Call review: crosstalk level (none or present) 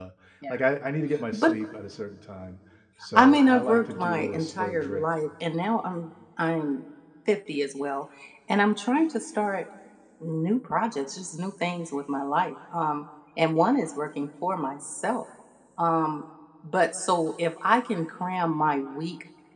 present